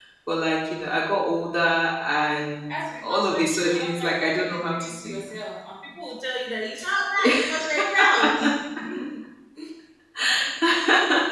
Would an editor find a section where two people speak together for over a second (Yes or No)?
Yes